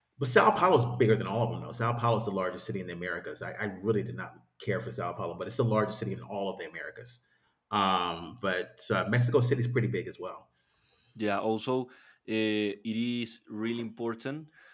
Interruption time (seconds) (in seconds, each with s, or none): none